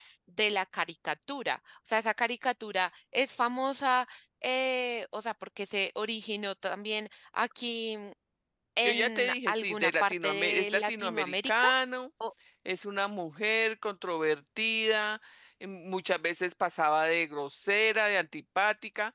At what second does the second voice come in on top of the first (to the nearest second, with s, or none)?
9 s